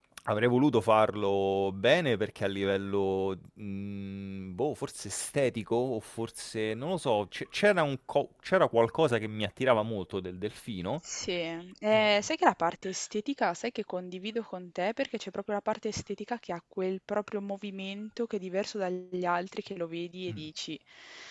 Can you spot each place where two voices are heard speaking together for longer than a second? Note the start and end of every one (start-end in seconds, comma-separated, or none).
none